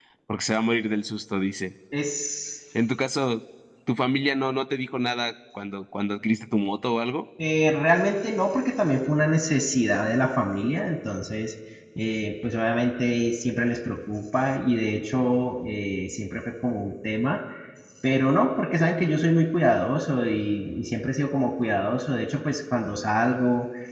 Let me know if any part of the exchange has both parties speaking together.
No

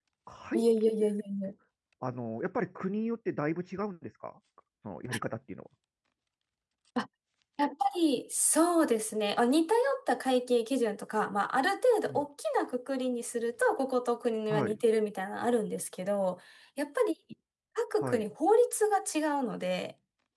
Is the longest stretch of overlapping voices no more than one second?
Yes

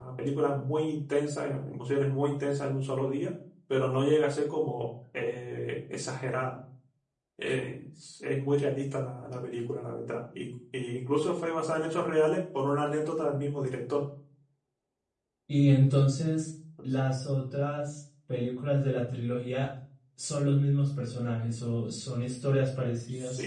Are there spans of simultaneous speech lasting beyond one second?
No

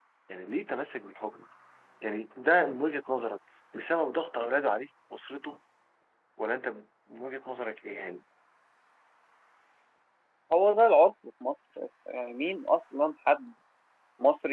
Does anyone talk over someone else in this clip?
No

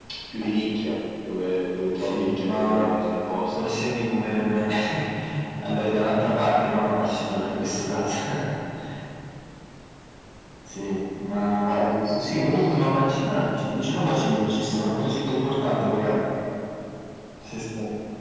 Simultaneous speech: Yes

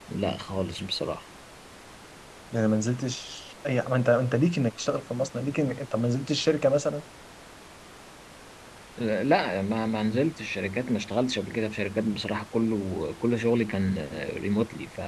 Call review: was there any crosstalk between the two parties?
No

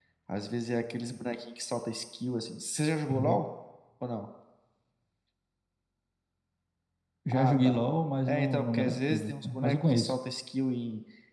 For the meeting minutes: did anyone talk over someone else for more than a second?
Yes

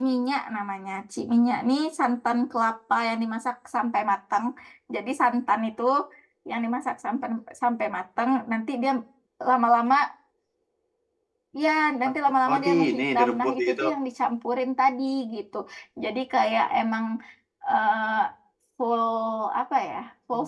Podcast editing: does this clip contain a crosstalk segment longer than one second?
Yes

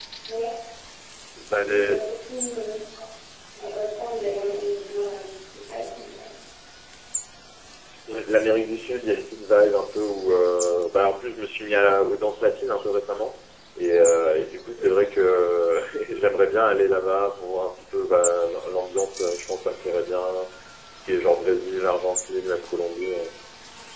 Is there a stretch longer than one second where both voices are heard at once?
No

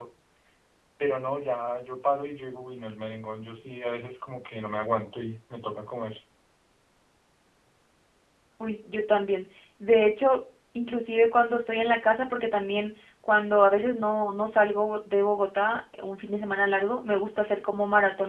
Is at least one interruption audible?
No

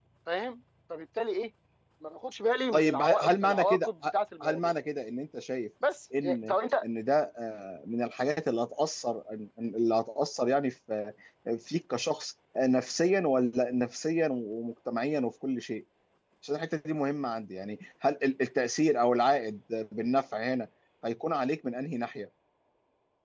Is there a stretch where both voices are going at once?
Yes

